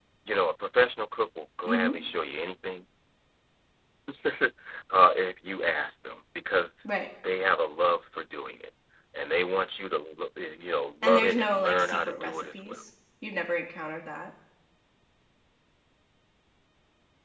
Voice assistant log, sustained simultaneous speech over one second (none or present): present